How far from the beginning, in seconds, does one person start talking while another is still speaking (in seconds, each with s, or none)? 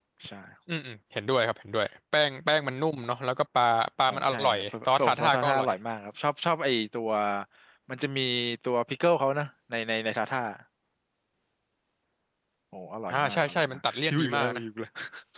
4.1 s